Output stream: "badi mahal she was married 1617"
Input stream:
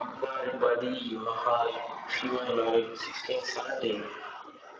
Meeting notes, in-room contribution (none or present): none